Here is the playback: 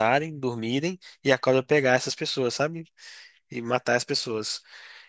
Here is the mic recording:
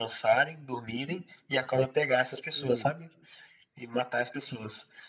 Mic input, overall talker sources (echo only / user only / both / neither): both